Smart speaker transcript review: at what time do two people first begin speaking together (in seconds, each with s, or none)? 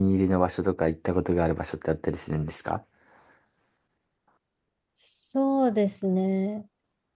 none